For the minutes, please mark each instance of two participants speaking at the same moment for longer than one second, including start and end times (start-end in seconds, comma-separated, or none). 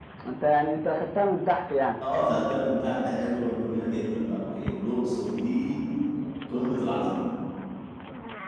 none